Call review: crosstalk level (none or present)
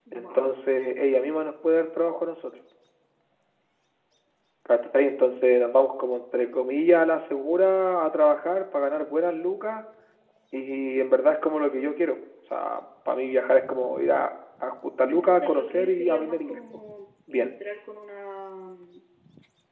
present